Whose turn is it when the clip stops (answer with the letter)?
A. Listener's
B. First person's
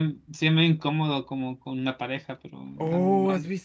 A